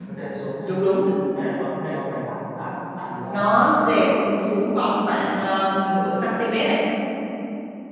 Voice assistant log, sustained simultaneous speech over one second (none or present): none